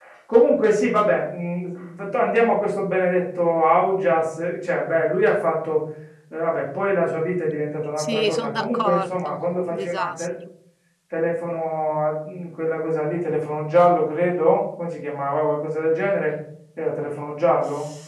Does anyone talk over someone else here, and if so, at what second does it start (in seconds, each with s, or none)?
8.0 s